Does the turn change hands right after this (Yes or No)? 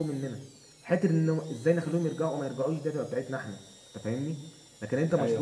No